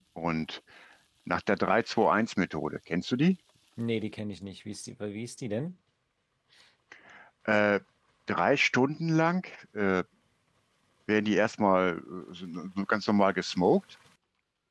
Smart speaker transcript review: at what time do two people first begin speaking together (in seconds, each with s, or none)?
none